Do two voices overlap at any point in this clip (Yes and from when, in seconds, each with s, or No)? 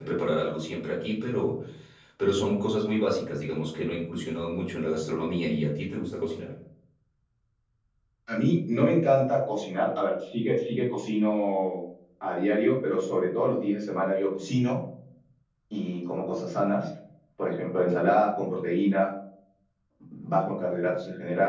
No